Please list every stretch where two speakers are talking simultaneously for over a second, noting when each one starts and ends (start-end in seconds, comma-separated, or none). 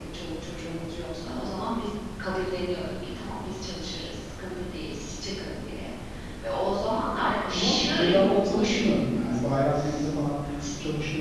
7.5-9.4